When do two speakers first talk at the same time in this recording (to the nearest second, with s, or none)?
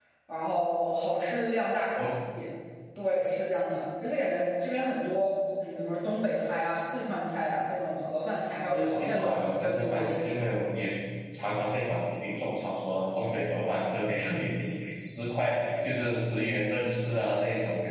9 s